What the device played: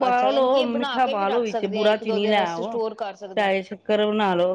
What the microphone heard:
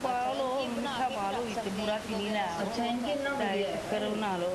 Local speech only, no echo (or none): ਅੱਛਾ, ਇਨਕੇ ਇੰਨਾ ਵਦੀਆ ਹੈਗਾ ਏ।